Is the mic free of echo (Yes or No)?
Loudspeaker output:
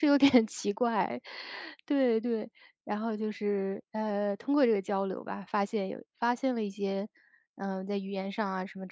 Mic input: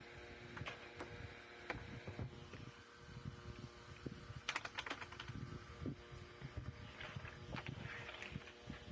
Yes